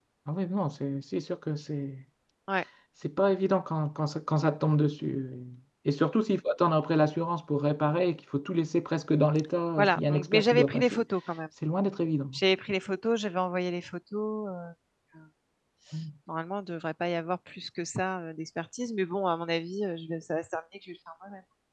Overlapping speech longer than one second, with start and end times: 9.8-11.0

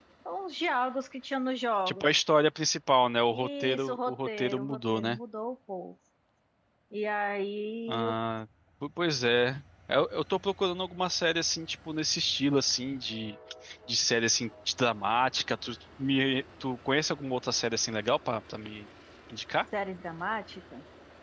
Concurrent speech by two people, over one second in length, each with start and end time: 3.3-5.2

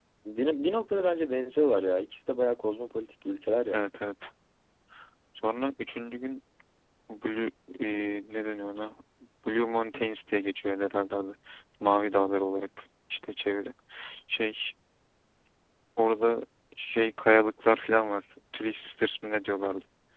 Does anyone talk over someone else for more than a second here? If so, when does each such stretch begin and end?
none

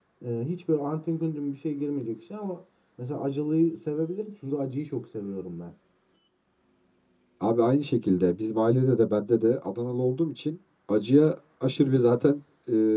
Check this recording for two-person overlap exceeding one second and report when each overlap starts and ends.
none

